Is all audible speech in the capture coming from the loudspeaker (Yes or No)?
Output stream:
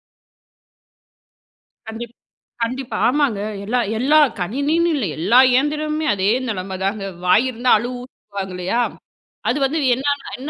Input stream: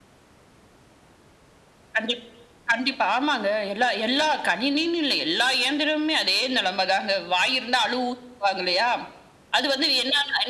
Yes